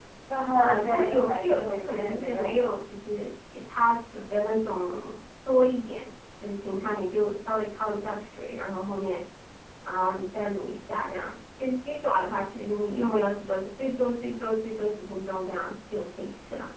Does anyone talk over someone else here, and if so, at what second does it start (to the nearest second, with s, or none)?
1 s